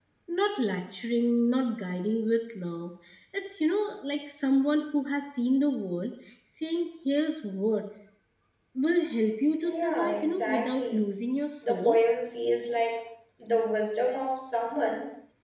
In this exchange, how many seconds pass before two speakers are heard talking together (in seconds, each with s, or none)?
9.6 s